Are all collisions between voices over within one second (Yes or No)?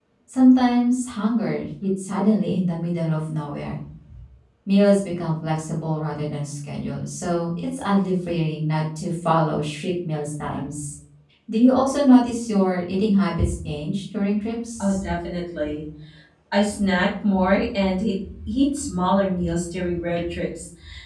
Yes